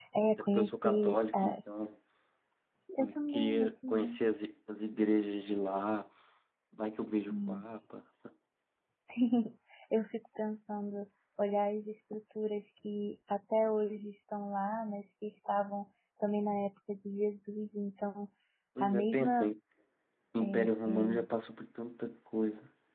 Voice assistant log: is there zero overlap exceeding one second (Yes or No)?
No